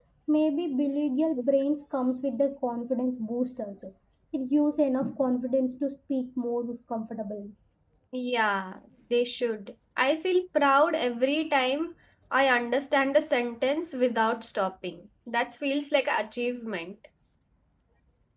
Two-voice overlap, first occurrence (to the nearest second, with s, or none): none